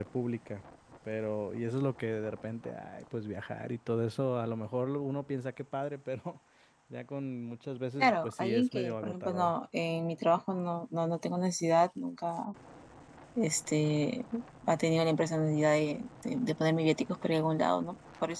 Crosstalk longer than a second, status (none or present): present